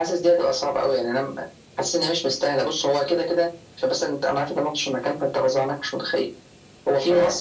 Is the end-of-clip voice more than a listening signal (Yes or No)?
No